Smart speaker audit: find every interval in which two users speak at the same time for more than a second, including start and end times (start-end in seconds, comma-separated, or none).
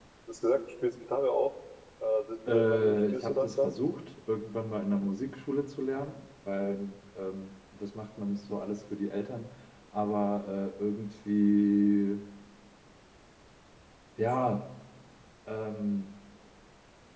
2.5-3.7